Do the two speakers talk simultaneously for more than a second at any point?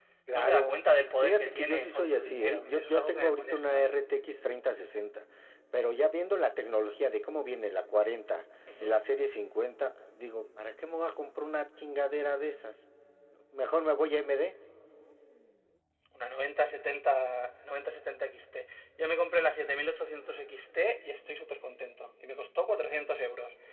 Yes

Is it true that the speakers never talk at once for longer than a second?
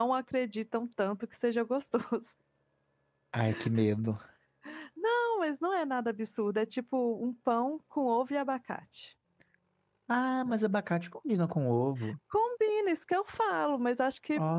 Yes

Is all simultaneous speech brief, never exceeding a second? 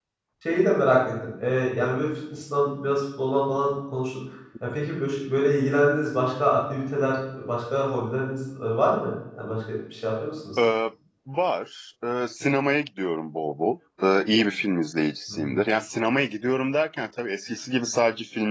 Yes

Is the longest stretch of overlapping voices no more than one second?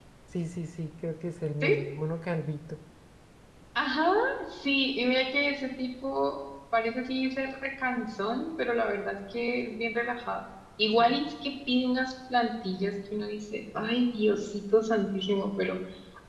Yes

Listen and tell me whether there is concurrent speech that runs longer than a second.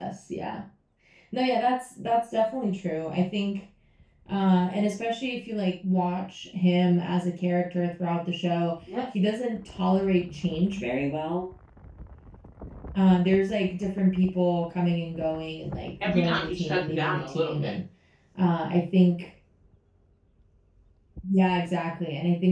Yes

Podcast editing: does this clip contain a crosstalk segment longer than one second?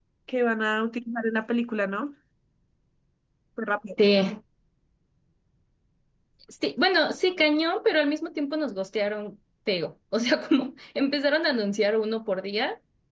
No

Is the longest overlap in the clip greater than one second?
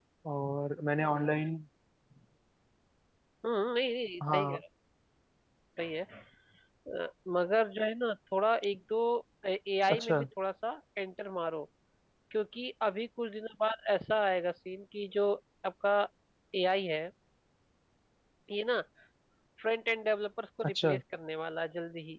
No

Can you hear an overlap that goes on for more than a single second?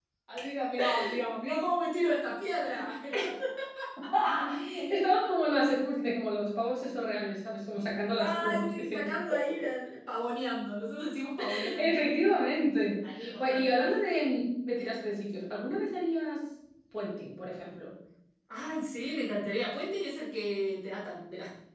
Yes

